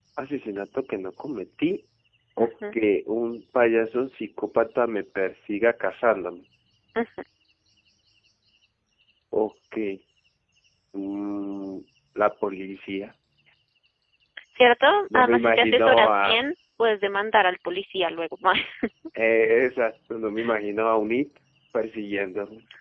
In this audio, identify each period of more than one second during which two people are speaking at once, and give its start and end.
15.2-16.5

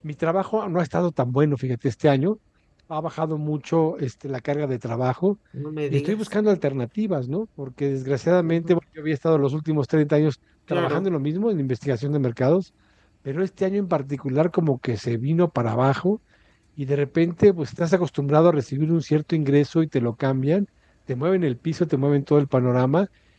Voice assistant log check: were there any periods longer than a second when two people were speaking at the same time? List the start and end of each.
none

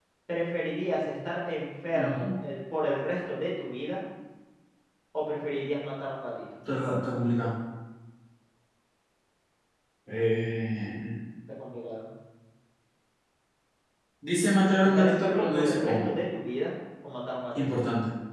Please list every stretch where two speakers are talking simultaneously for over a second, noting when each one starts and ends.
14.8-16.1

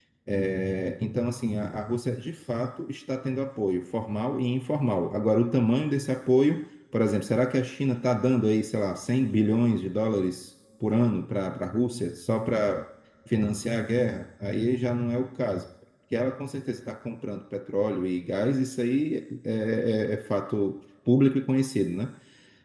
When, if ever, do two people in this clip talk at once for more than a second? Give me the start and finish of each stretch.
none

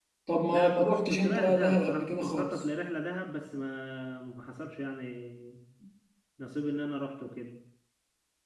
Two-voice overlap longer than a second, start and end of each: 0.5-2.6

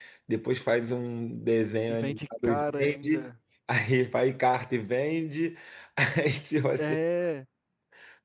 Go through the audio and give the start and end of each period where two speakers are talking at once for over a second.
1.9-3.3

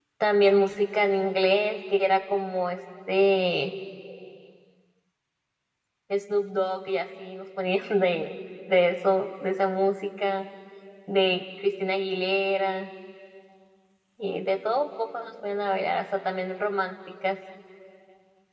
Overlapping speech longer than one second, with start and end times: none

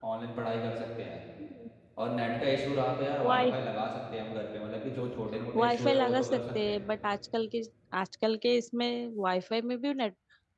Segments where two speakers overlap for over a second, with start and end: 5.5-6.8

